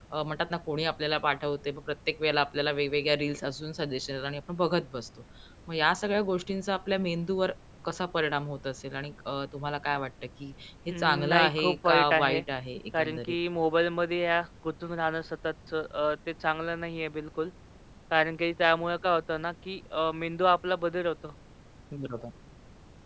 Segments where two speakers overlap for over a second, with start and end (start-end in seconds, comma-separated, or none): 10.9-12.4